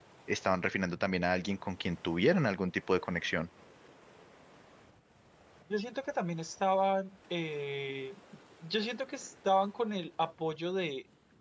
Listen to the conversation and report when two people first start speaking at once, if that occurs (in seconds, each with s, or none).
none